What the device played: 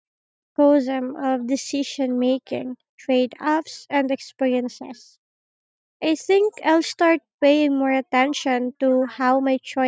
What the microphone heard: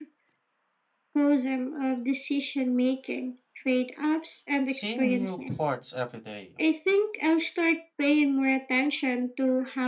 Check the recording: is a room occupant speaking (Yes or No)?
Yes